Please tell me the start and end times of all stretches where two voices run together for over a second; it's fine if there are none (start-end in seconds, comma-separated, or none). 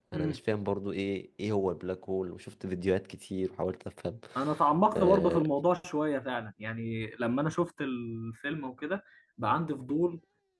none